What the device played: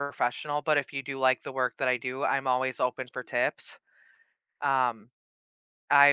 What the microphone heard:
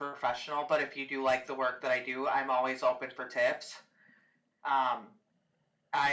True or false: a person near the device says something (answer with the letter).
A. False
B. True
A